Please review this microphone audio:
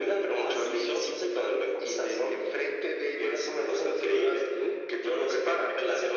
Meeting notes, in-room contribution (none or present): none